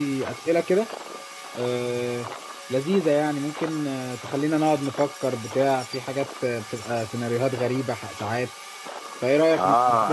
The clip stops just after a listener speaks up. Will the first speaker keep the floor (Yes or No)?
No